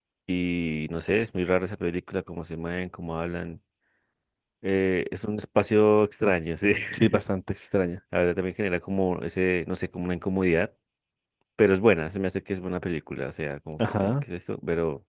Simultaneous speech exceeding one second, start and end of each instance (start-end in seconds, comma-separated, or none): none